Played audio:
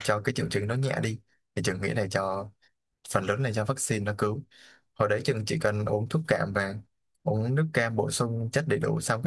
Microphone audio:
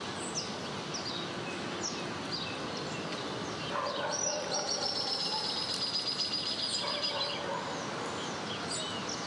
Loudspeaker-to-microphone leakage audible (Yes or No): No